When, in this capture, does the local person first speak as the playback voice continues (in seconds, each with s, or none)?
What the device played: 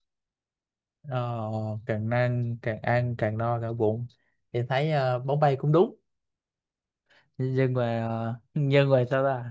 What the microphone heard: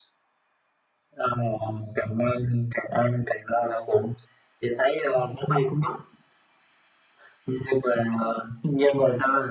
none